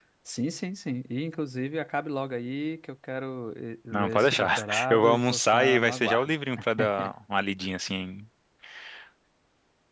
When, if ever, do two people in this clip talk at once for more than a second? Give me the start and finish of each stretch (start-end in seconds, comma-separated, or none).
3.9-6.3